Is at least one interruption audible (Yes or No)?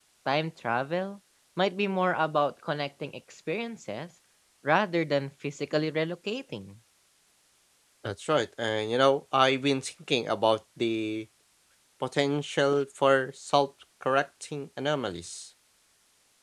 No